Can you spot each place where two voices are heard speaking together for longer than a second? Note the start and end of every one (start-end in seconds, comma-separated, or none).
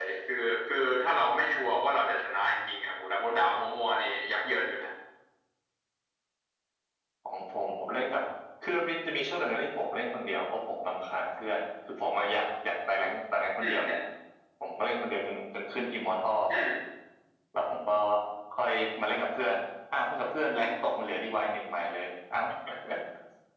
none